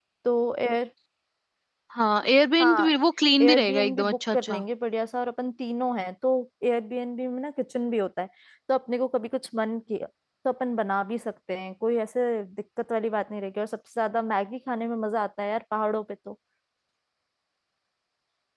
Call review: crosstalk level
present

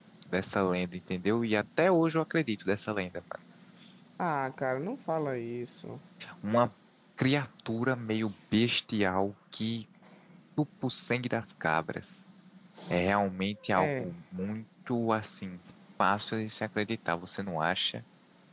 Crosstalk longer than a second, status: none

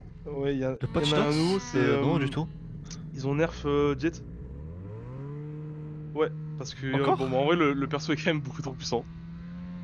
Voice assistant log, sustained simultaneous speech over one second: present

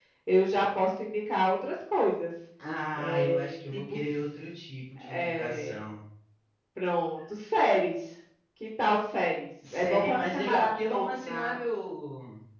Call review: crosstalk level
present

